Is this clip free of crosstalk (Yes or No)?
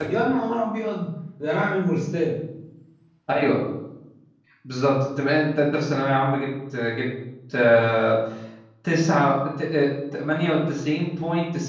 Yes